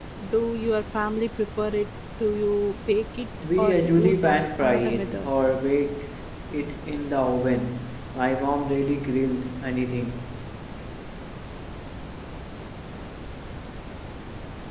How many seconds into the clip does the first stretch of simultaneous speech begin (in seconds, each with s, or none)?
3.4 s